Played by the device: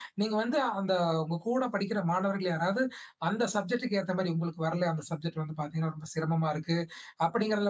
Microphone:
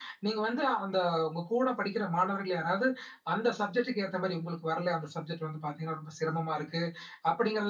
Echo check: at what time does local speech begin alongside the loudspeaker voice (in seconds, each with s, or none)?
none